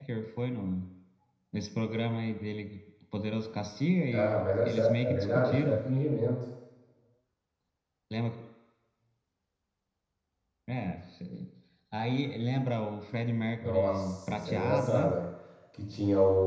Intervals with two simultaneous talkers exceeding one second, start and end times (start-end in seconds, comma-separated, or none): 4.1-5.8, 13.6-15.2